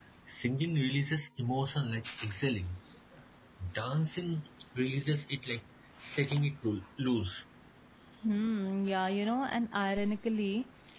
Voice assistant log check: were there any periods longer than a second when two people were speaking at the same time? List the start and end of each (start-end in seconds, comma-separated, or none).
none